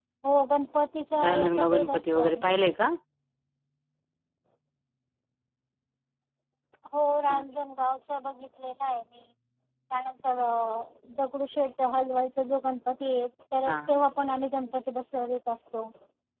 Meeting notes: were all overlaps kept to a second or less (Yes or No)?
No